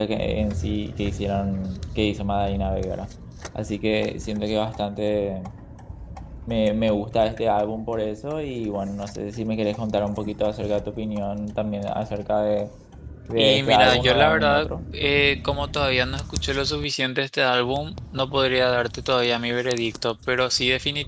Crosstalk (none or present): present